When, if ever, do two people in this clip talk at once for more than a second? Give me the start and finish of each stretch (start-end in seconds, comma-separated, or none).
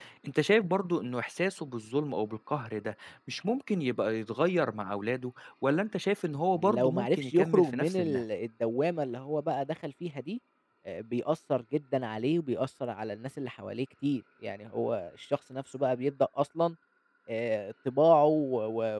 6.5-8.2